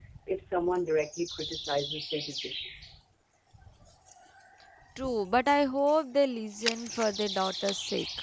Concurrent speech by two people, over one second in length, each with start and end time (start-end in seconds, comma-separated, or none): none